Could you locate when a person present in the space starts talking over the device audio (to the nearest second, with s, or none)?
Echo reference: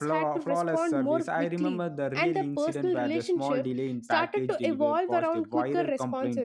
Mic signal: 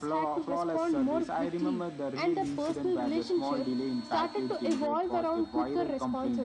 none